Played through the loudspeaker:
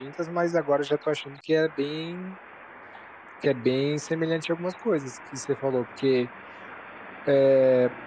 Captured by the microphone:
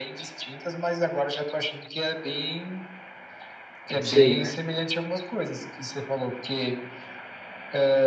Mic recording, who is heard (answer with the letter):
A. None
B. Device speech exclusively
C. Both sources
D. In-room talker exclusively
C